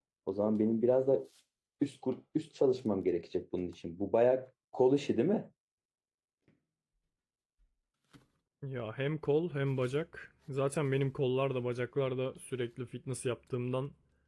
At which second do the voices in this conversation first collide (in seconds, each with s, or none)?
none